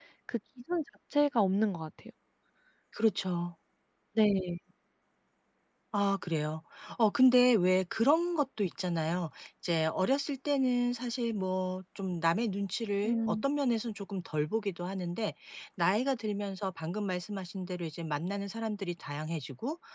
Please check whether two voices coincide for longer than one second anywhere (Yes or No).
No